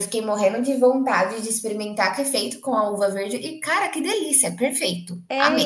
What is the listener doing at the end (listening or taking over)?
taking over